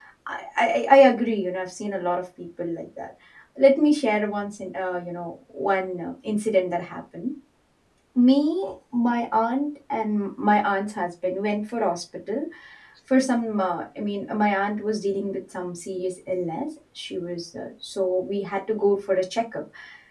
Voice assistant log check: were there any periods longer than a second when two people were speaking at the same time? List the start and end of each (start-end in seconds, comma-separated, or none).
none